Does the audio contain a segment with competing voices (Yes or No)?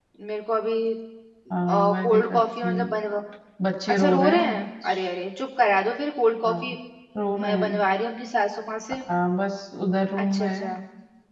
Yes